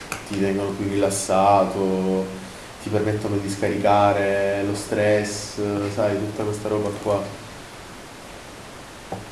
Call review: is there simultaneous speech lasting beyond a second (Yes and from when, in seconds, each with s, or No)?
No